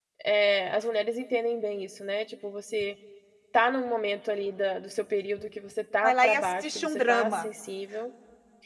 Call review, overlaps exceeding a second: present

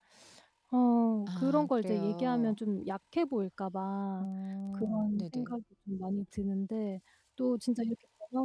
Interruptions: present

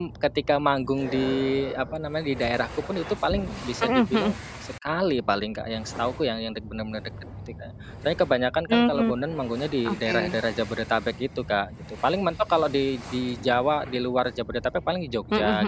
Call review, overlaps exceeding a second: none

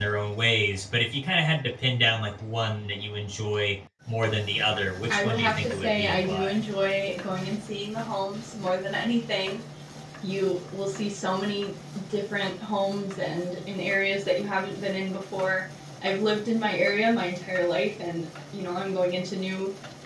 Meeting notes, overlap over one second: present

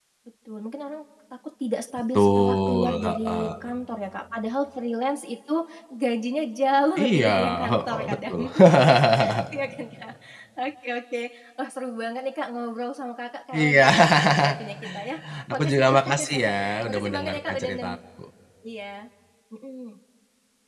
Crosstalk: present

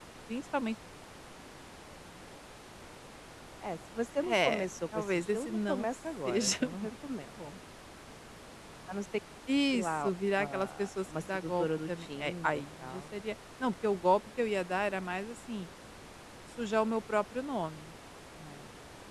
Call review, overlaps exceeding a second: present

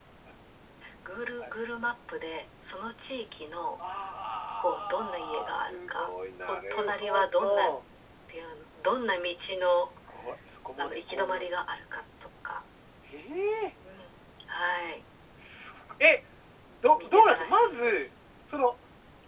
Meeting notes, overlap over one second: present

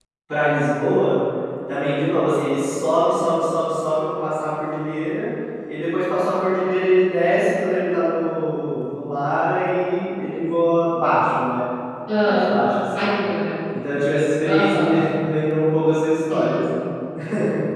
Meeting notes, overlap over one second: none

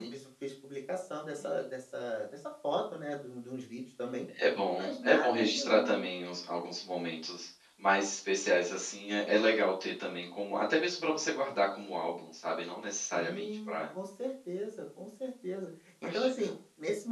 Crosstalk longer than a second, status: present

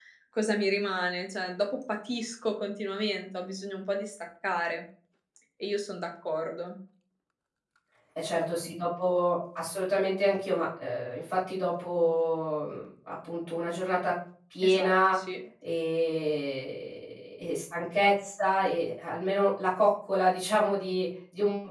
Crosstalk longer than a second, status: none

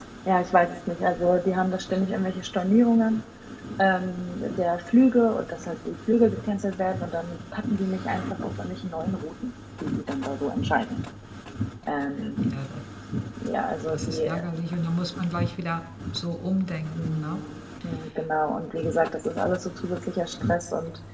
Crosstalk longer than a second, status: none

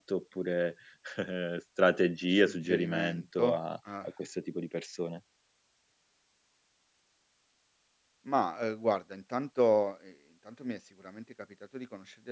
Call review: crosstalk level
present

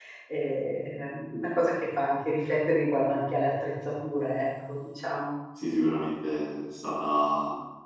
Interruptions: none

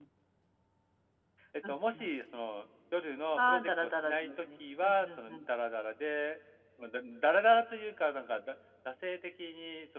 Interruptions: present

